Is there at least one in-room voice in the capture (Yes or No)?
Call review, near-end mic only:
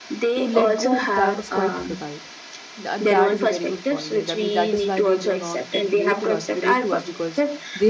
Yes